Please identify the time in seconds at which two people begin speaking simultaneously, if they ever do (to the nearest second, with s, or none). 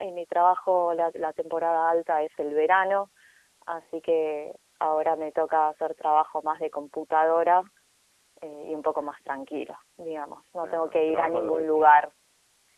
11 s